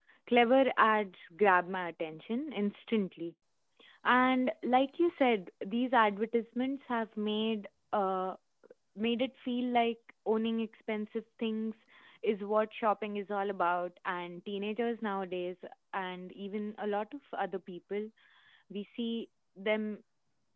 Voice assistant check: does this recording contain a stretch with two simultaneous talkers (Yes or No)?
No